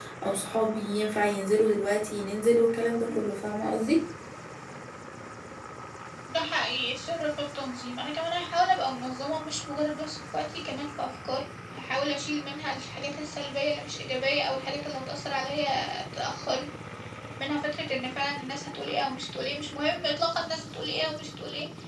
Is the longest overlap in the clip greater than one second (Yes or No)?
No